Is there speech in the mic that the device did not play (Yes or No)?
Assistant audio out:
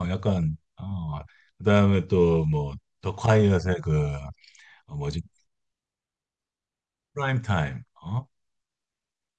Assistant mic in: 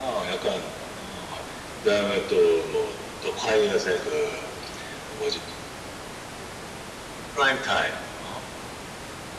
No